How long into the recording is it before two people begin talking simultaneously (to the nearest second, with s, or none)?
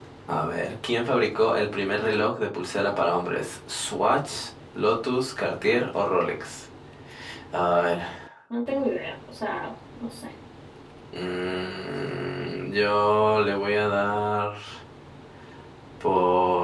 none